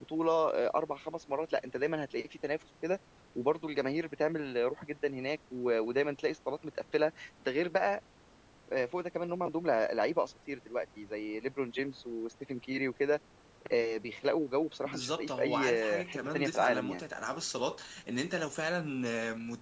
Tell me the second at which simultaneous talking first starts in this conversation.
15 s

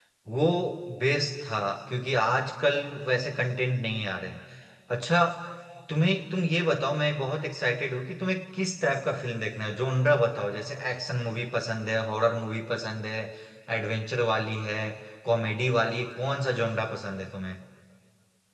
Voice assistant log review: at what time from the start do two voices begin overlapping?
none

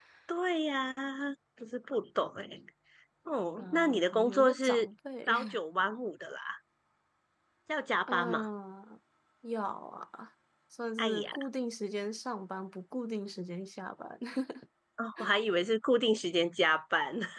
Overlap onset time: 4 s

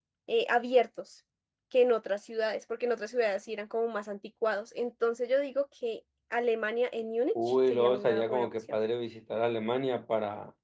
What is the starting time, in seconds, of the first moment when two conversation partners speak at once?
7 s

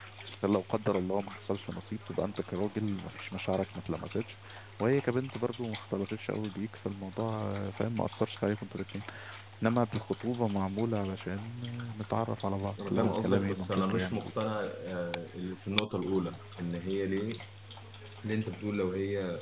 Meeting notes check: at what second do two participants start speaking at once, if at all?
13 s

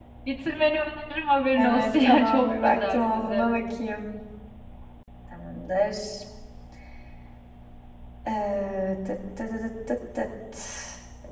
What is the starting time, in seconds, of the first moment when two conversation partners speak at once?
2 s

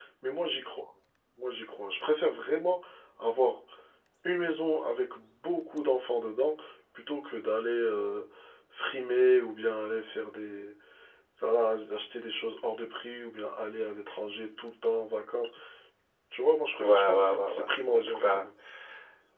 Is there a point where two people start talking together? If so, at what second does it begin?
17 s

